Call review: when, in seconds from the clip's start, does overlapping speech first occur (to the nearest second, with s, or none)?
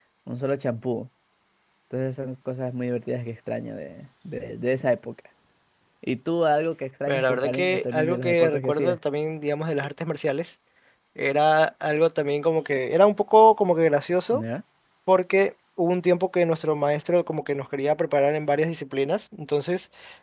7 s